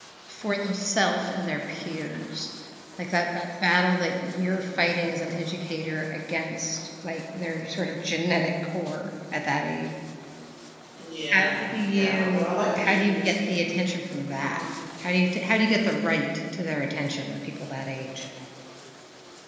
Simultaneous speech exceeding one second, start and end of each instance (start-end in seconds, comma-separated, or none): 11.3-13.3